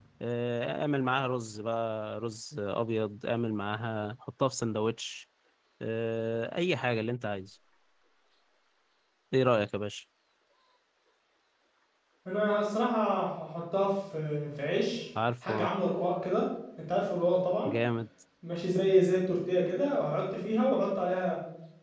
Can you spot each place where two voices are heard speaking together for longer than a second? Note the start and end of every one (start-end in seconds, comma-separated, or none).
none